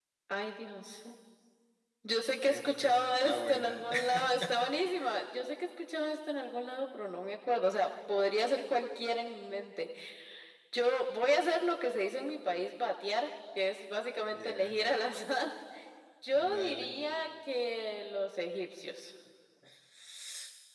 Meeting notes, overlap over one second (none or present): present